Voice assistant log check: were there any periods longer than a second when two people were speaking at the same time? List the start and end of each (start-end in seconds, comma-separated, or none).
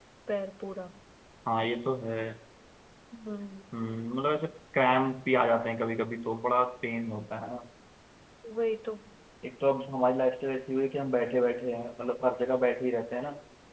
none